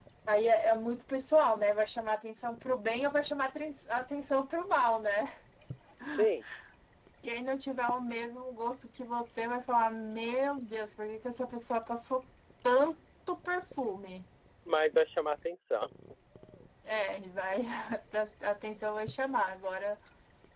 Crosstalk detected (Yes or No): No